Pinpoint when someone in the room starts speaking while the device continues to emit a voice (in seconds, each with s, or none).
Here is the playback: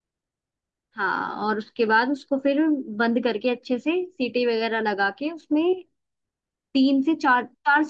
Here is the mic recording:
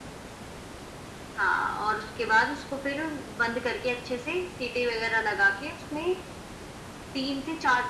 none